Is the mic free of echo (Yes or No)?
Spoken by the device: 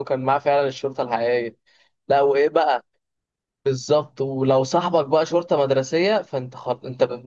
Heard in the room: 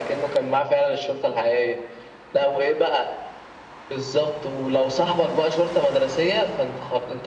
No